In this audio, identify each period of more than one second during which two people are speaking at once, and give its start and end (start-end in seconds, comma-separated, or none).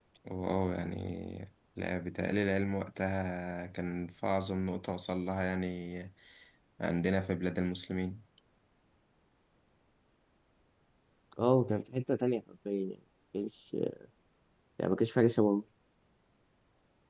none